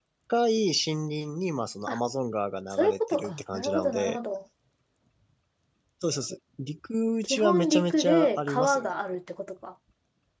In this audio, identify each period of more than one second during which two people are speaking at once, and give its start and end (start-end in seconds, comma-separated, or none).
2.7-4.2, 7.2-8.9